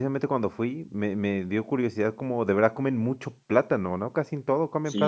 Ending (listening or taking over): taking over